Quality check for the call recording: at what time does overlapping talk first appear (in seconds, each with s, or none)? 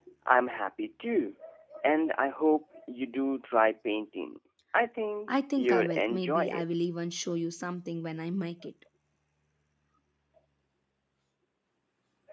5.3 s